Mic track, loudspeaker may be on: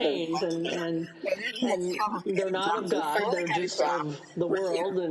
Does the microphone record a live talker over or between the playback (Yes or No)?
Yes